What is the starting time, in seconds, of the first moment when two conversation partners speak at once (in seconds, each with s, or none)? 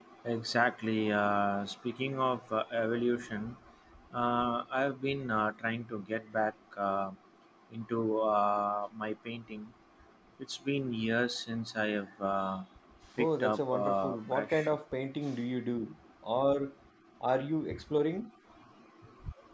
13.2 s